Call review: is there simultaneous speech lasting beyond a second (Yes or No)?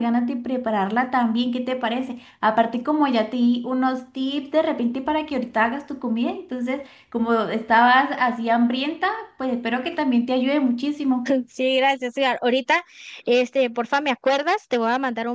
No